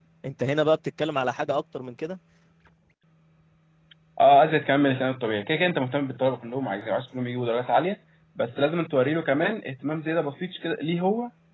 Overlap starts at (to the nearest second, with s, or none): none